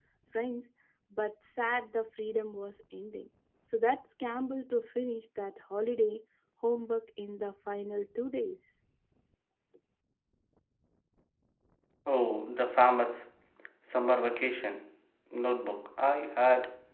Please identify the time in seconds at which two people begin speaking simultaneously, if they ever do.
none

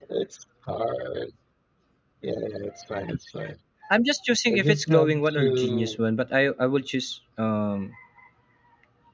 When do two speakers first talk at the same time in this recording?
5 s

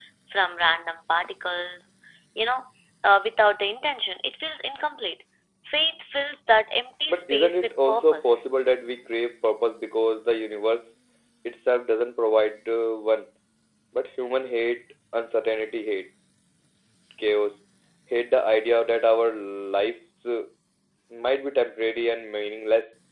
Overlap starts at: 7 s

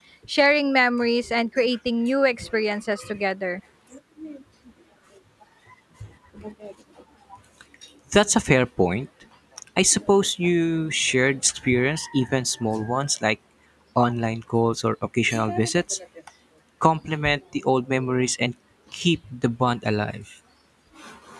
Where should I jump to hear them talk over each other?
none

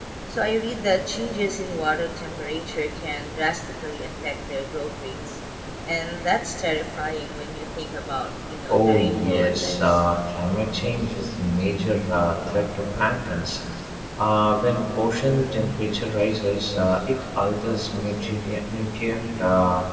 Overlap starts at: 9 s

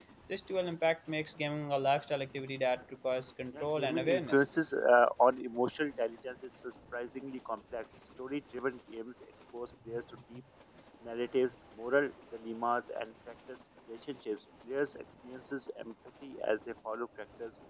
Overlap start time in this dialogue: 4 s

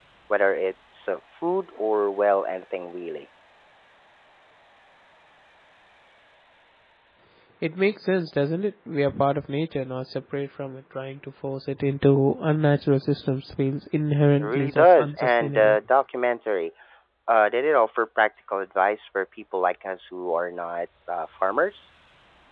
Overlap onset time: 14 s

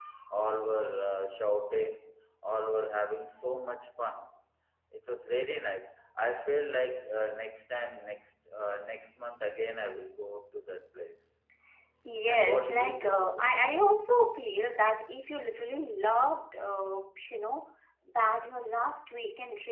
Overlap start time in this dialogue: 12 s

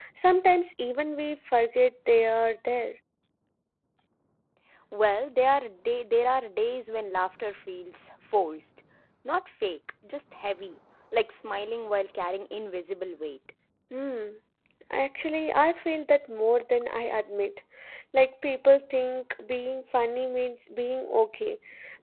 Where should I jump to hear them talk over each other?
none

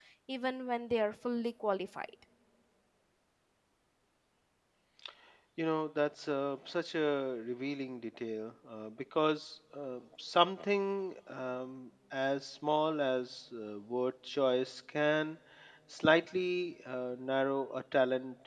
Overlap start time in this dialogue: none

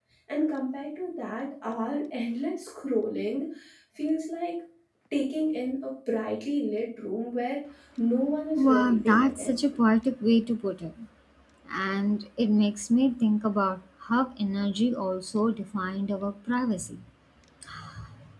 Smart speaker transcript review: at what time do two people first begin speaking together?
9 s

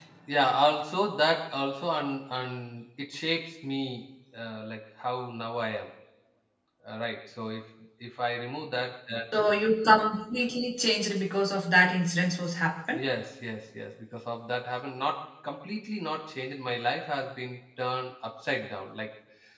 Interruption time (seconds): none

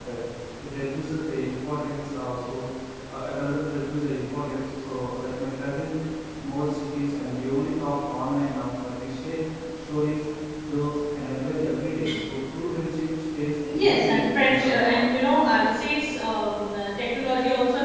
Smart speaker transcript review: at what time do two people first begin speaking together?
14 s

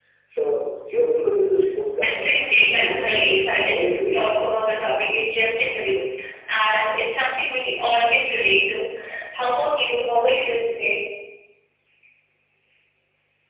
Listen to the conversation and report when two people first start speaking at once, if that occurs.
2 s

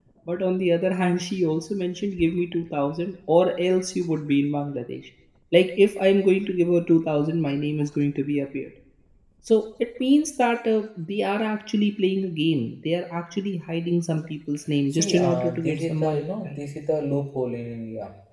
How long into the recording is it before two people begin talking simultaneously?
15 s

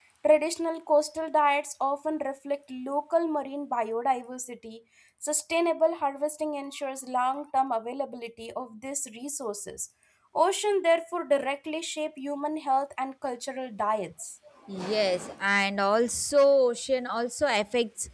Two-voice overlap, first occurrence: none

